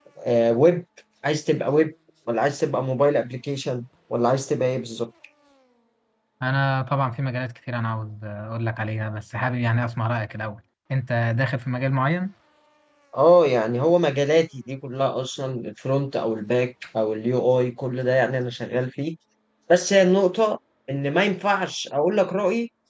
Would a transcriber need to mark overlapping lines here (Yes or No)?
No